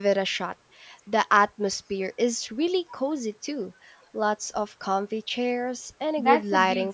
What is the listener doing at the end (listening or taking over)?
taking over